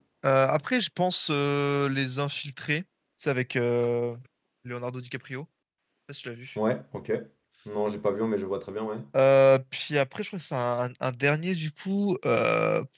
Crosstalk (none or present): none